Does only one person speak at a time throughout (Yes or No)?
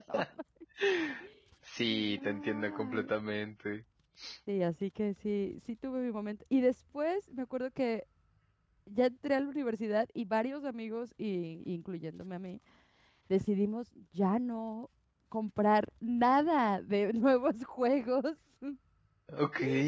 No